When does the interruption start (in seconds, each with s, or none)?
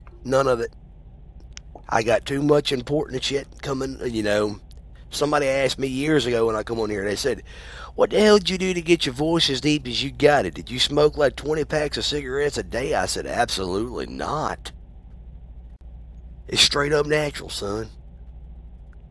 none